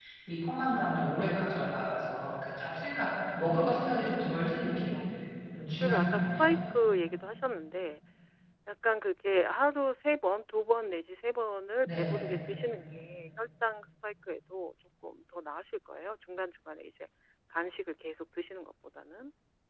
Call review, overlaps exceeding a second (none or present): present